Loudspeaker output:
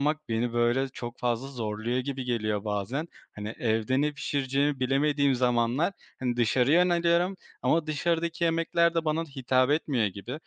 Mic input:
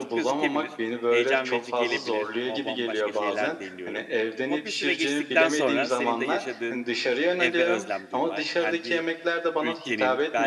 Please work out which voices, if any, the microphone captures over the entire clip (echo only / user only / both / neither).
both